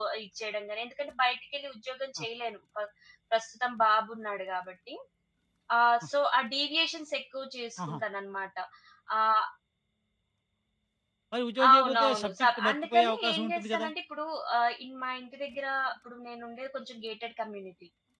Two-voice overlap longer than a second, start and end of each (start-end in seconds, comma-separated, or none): 11.7-13.9